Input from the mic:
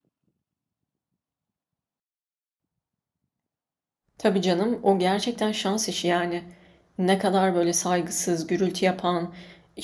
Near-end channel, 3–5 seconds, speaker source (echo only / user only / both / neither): user only